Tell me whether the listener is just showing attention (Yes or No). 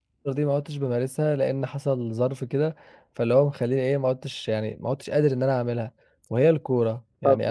No